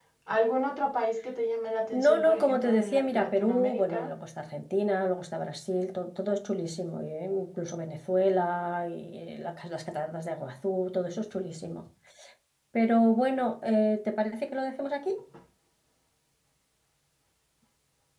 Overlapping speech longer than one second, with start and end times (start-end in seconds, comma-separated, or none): 1.9-4.1